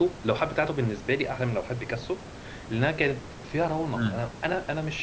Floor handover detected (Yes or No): No